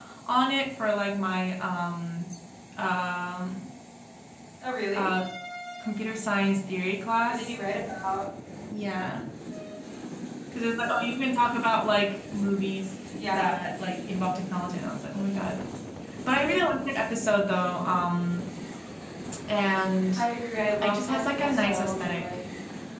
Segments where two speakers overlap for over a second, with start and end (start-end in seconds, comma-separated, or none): 20.8-22.2